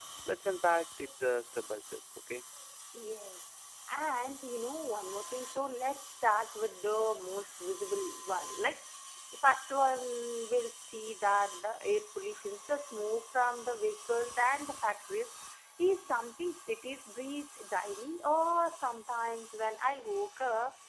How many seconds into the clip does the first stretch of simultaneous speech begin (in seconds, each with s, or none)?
none